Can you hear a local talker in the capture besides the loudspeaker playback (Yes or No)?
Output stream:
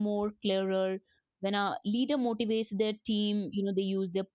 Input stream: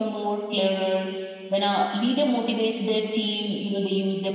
No